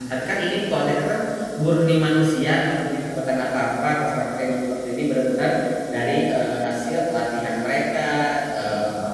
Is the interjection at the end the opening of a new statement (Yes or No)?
No